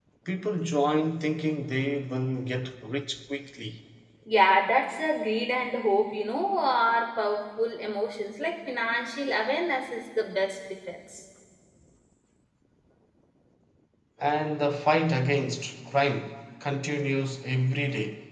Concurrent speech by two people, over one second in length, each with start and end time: none

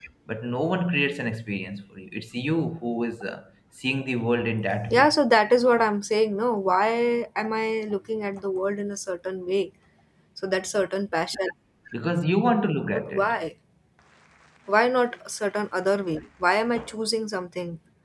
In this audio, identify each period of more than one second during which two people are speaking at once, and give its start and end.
none

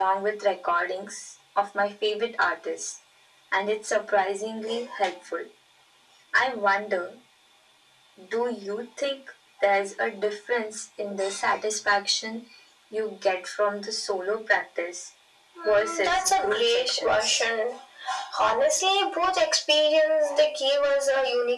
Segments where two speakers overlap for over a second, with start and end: 15.6-17.4

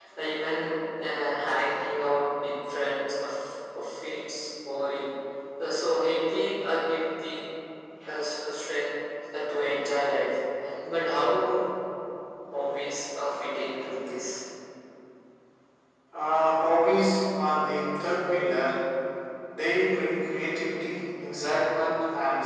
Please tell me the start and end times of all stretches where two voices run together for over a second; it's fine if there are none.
none

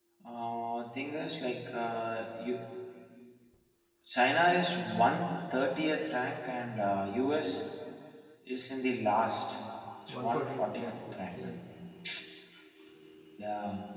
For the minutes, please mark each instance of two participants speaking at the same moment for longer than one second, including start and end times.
10.2-11.4

